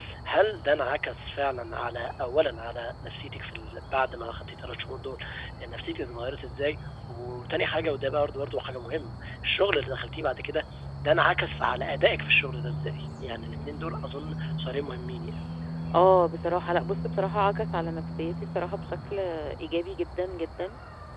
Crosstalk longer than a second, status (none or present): none